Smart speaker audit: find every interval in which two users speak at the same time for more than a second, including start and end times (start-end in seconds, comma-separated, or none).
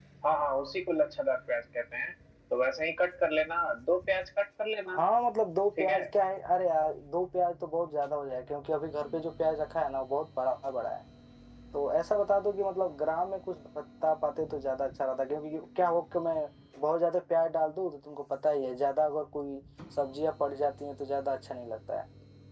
none